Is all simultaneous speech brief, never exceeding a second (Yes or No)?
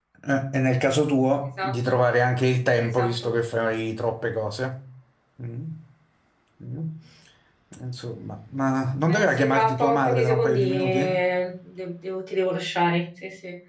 No